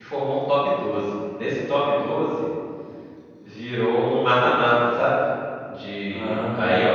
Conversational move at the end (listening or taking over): listening